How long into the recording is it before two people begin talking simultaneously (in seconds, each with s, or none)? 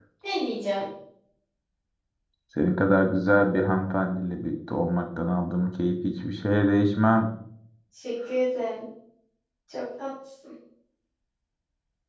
none